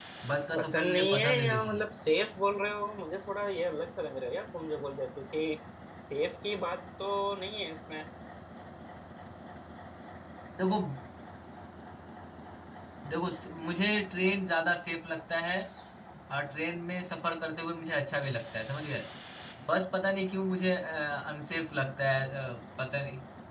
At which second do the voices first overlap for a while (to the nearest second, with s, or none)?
1 s